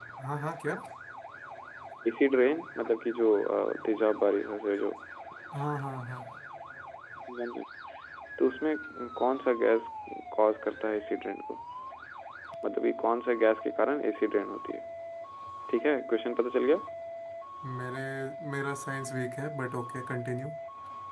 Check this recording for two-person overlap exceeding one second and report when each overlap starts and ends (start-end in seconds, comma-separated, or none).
none